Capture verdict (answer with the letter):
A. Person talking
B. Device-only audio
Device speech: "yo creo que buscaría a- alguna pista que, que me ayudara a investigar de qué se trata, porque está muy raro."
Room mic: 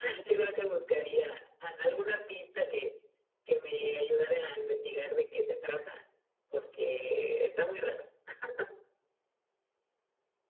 B